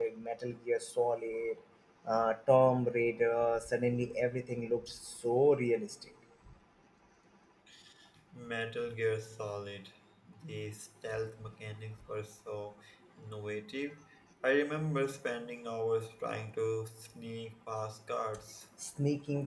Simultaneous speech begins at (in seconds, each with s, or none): none